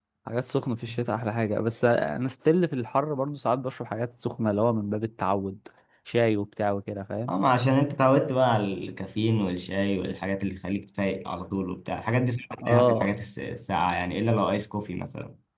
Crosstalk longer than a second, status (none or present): none